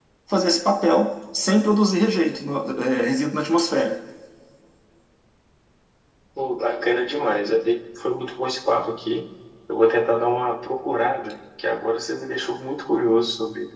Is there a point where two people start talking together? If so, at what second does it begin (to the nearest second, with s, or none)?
none